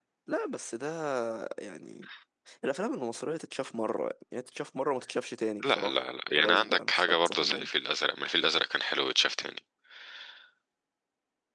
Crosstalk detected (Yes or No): Yes